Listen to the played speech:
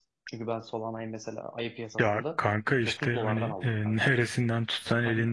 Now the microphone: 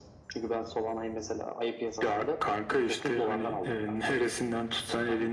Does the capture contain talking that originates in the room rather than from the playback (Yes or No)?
No